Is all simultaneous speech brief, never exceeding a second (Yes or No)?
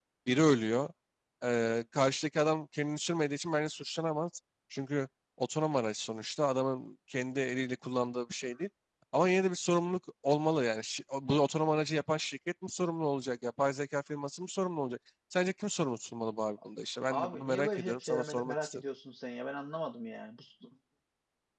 No